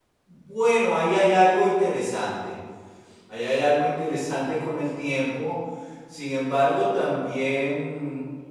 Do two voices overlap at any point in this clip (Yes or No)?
No